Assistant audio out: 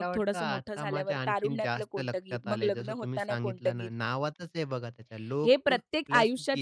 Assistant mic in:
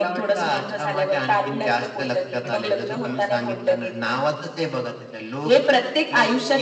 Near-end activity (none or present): present